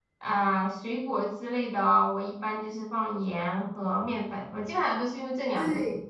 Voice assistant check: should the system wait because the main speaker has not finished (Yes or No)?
No